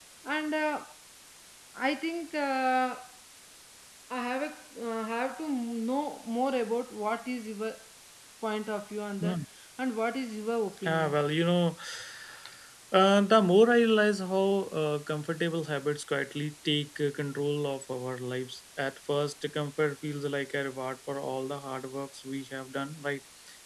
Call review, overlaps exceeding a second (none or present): none